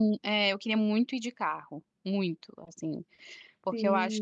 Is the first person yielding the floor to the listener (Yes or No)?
No